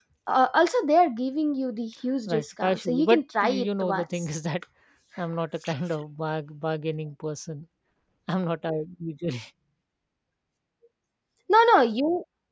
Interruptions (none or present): present